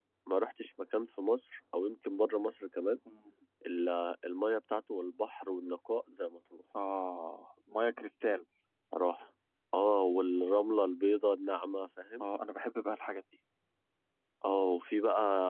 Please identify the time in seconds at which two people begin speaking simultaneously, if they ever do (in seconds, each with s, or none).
none